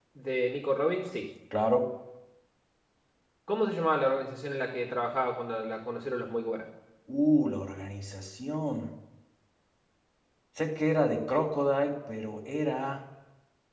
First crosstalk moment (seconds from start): none

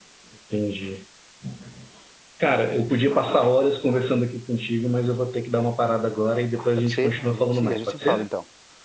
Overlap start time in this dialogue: 6.8 s

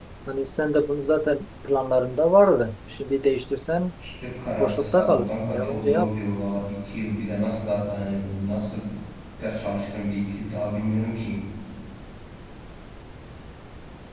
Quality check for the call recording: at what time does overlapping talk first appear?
4.6 s

